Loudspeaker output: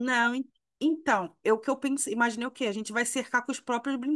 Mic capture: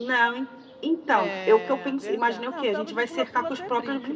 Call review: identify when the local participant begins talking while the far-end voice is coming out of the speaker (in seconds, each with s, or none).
1.1 s